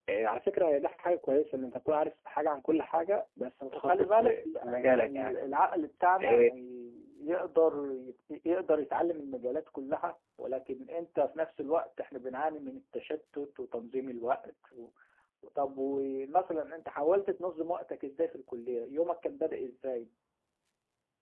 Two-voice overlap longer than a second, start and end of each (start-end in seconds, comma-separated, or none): 3.7-5.4